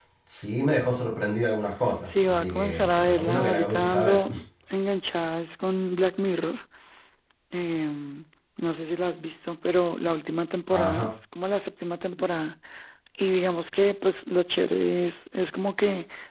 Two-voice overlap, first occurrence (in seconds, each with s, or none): 2.1 s